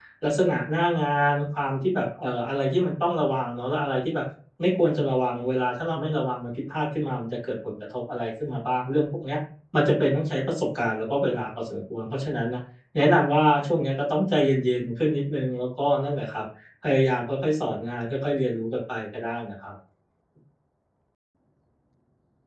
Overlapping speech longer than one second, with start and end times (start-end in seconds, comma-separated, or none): none